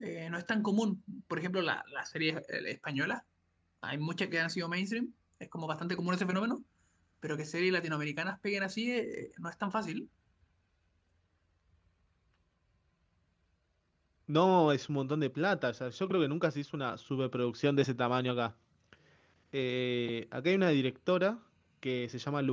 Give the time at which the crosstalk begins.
none

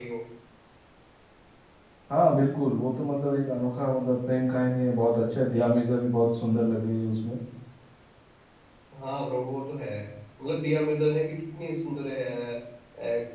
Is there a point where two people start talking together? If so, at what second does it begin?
none

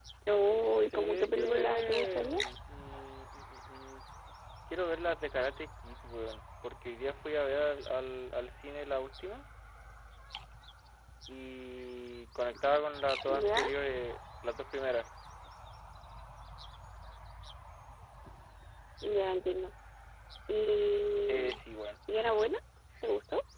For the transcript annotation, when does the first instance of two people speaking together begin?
0.7 s

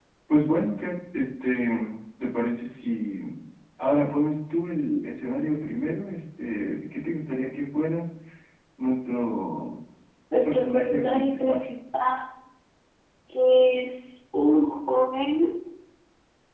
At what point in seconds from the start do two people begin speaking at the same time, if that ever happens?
10.4 s

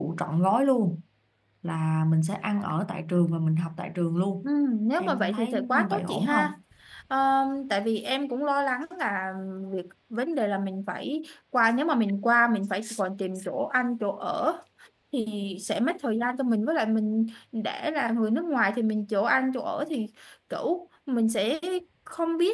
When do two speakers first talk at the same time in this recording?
5.0 s

